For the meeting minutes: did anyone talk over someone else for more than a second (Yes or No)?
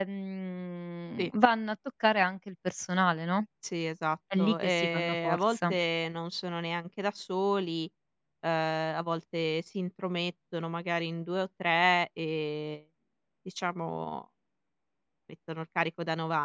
Yes